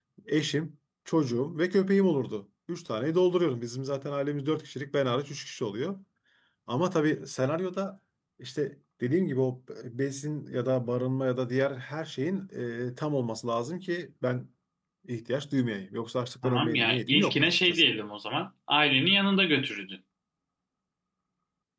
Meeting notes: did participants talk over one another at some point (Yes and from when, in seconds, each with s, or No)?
Yes, from 16.4 s